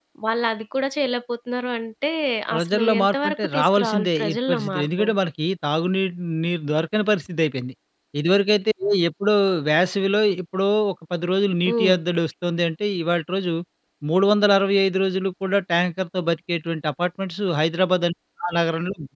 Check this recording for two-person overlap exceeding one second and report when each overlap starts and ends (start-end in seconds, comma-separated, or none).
2.5-5.0